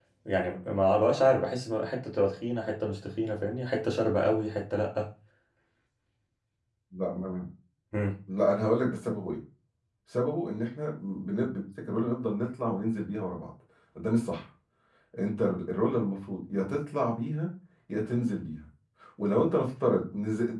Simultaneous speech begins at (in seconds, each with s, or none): none